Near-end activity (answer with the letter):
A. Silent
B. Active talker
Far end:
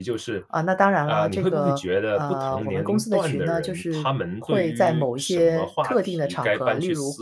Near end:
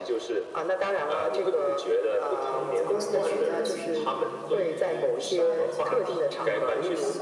B